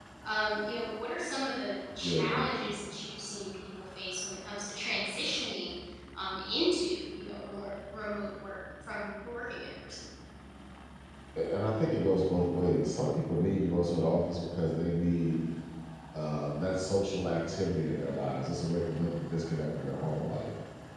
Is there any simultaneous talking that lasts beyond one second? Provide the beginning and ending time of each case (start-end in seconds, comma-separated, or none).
none